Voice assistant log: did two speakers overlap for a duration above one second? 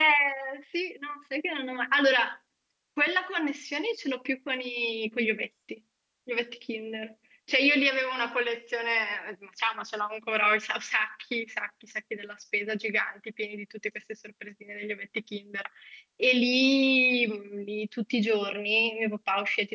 No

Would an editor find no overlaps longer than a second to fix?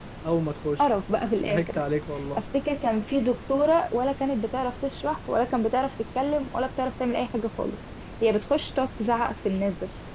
Yes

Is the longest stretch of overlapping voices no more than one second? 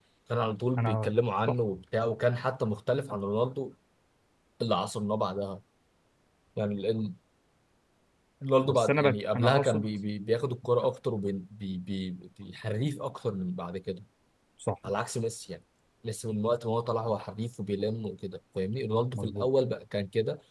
No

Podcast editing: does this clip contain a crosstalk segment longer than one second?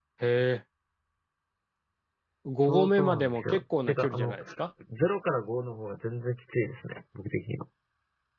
Yes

